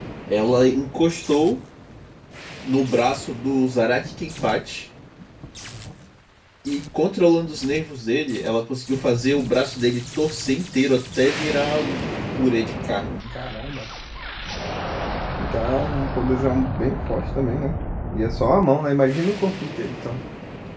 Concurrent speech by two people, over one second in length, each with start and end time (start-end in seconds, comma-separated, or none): none